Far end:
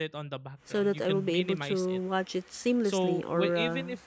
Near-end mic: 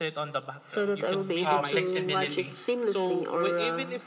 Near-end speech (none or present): present